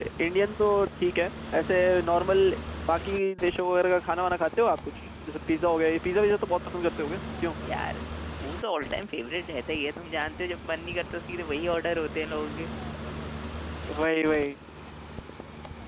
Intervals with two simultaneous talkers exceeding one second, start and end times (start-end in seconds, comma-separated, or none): none